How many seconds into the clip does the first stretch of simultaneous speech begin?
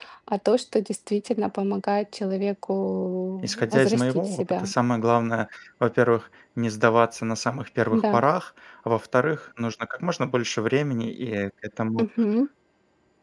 3 s

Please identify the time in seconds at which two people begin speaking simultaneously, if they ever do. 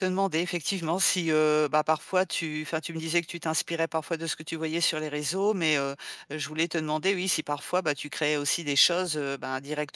none

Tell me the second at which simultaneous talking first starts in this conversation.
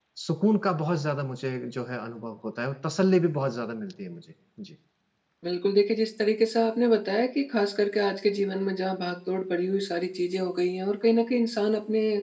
none

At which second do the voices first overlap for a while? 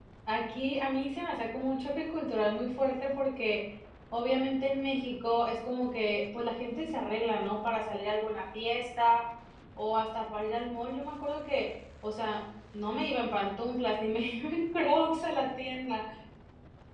none

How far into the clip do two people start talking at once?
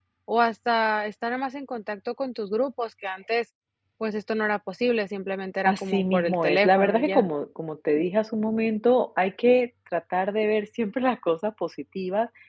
6 s

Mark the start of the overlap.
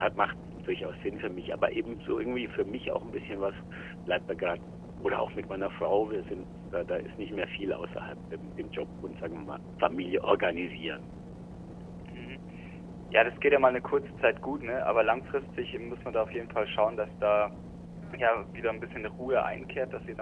none

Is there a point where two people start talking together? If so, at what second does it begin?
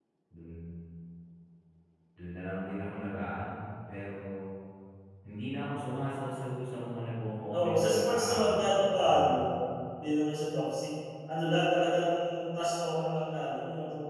8 s

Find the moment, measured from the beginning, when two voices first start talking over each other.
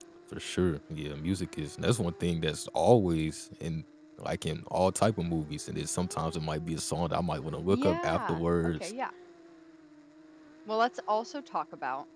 8 s

